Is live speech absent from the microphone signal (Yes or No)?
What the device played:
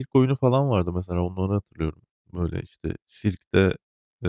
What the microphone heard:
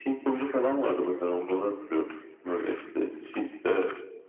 Yes